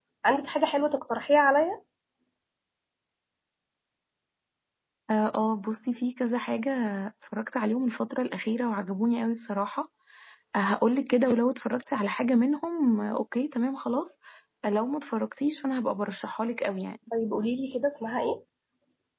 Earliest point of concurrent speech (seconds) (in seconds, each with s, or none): none